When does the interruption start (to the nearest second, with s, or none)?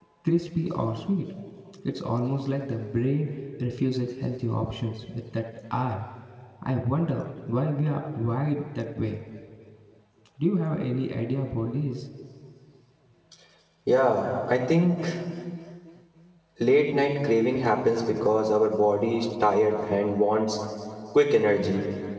none